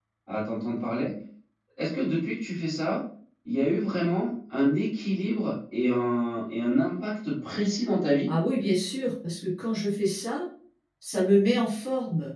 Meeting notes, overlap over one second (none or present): none